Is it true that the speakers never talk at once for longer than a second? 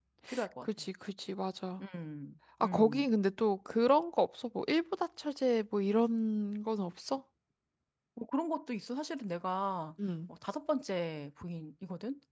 Yes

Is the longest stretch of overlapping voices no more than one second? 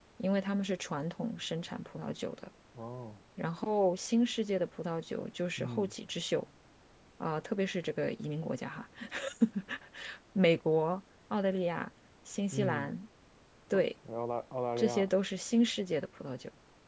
Yes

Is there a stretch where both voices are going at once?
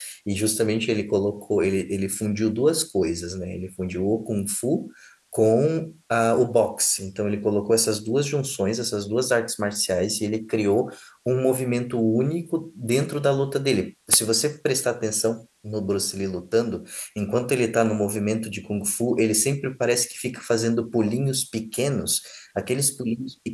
No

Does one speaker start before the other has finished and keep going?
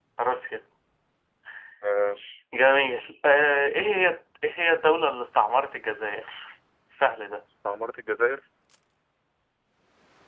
No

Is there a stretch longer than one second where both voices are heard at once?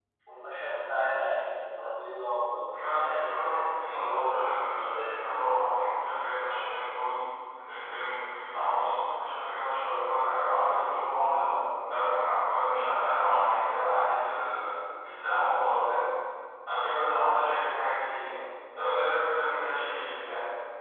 Yes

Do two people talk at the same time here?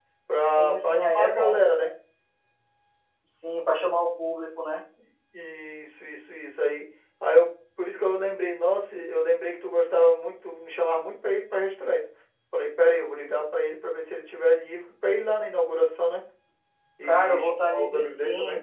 Yes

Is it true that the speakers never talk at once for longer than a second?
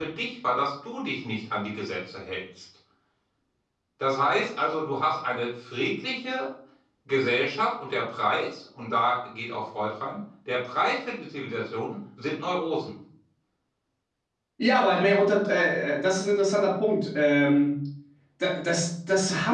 Yes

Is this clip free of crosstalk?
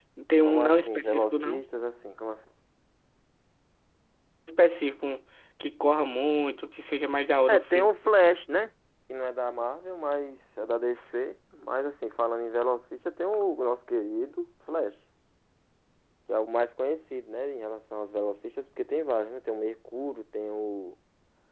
No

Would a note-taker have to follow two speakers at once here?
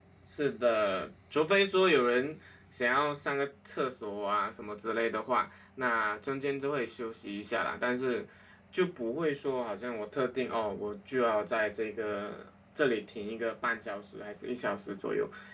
No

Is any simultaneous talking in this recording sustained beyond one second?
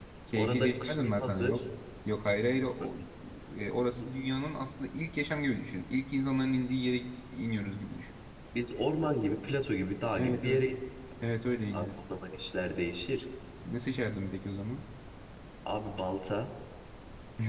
Yes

